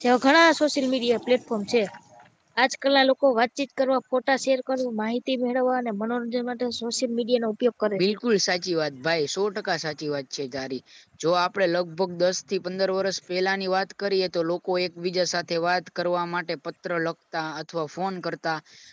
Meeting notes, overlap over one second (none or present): none